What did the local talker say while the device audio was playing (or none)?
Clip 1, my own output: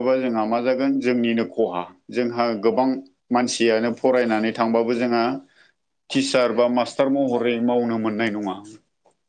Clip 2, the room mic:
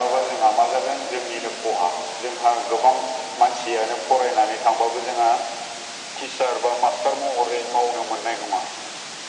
none